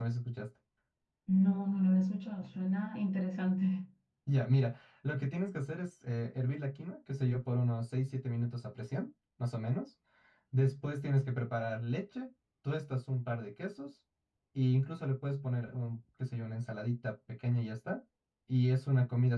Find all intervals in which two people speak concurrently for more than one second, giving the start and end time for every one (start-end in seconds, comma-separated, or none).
none